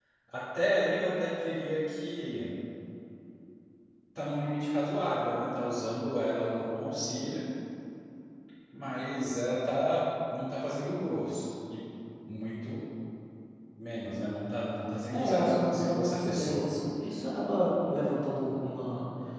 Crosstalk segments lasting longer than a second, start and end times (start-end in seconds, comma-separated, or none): 15.1-16.7